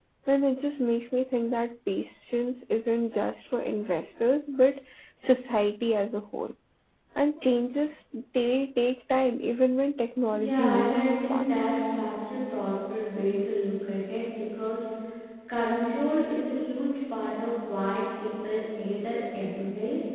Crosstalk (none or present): present